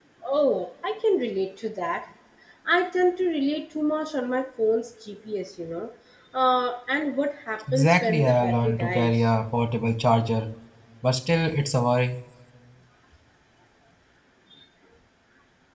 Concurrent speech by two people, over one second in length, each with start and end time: 7.7-9.1

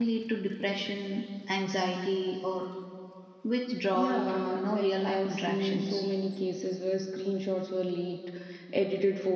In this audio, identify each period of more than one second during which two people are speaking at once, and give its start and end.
3.9-5.9

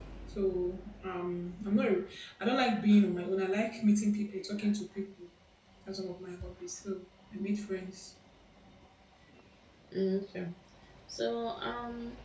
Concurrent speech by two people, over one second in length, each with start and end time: none

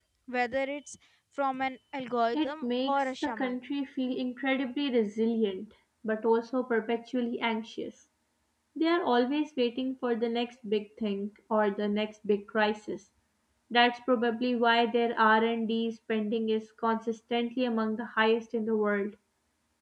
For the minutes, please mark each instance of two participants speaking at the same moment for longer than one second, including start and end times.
2.3-3.6

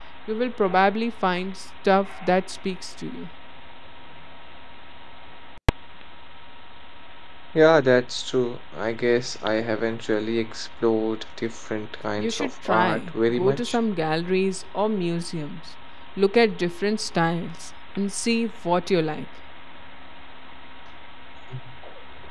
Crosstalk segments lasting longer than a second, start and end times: 12.2-13.8

